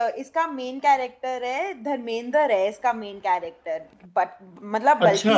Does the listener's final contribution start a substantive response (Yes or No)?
No